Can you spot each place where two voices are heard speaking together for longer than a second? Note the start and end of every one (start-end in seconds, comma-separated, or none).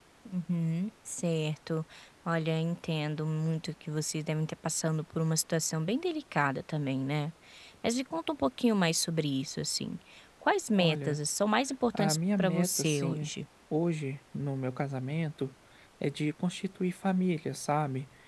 11.9-13.3